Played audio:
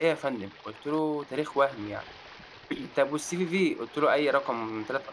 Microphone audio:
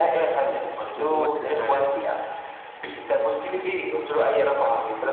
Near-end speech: present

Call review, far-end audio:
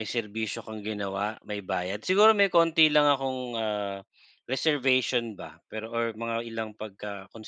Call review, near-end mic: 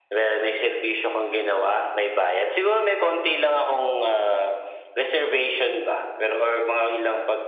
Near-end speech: none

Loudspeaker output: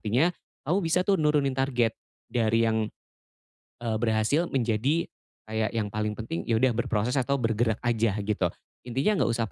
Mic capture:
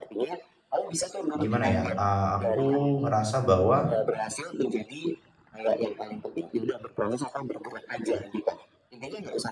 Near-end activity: present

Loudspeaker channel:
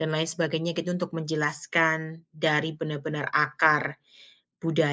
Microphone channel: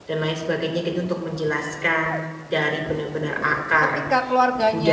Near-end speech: present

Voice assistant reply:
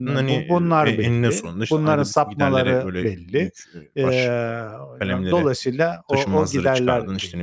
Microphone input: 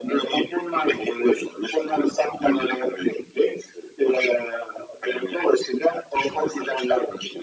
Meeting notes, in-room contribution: none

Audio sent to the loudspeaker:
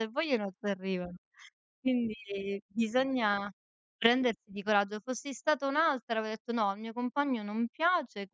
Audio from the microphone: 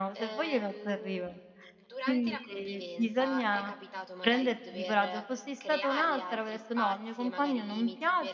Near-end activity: present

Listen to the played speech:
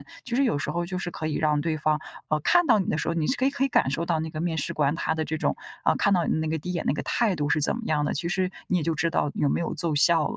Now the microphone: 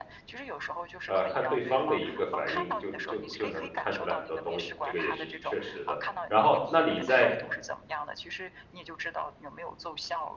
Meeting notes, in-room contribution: present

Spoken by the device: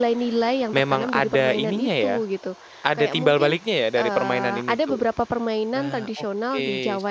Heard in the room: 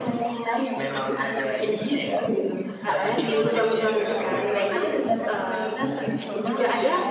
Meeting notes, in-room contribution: present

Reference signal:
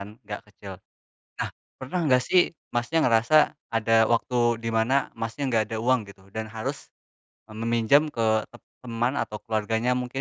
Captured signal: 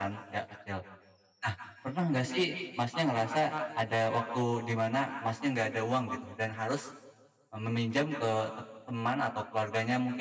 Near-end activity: none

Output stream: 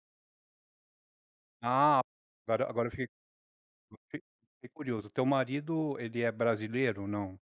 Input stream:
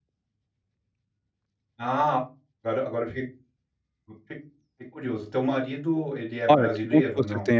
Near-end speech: present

